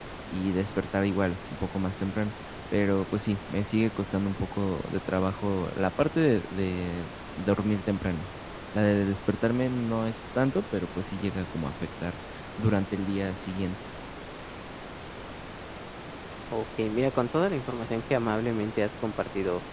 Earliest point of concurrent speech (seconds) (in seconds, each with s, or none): none